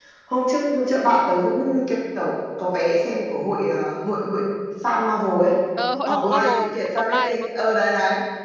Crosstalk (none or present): present